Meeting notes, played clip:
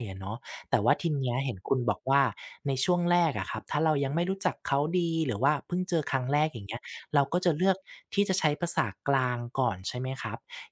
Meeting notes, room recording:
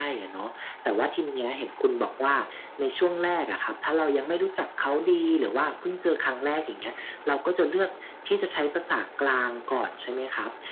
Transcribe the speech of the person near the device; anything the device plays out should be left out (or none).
none